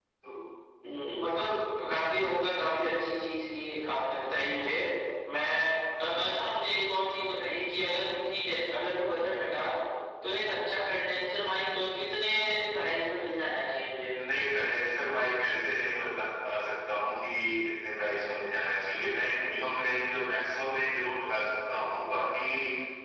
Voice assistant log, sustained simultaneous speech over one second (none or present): none